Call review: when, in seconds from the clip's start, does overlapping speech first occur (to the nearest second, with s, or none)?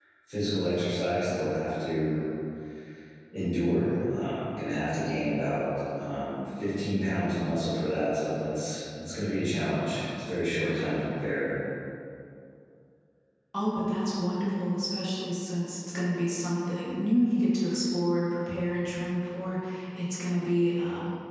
none